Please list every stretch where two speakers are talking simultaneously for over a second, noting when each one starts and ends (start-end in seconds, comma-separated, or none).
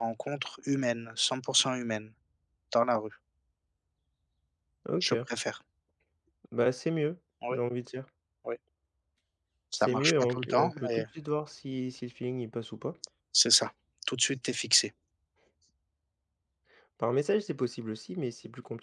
9.8-11.1